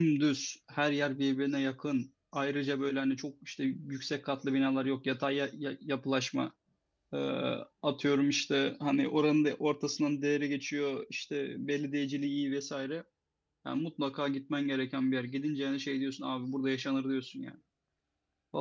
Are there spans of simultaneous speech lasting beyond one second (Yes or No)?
No